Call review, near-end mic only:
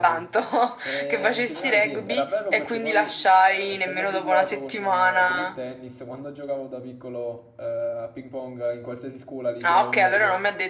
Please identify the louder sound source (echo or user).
echo